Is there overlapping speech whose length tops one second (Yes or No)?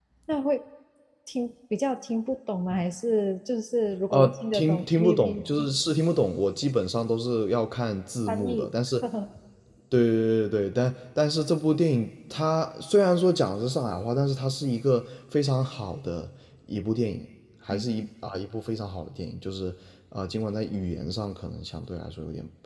Yes